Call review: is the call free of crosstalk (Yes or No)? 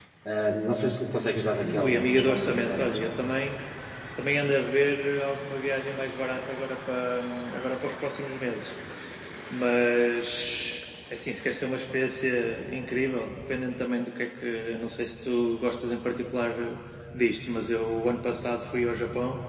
No